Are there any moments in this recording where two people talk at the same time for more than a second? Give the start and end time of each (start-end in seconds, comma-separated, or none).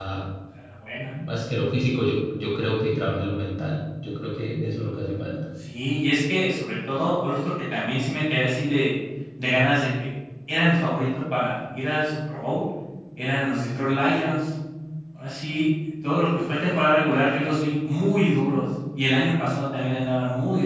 none